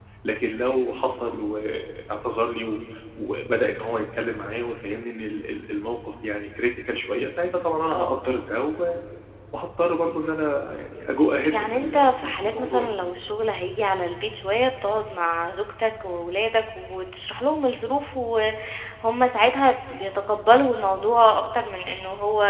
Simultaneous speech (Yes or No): Yes